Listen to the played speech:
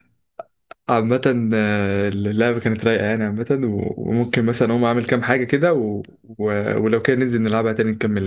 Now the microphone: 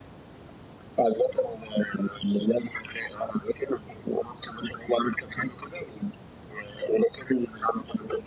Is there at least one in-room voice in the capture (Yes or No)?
No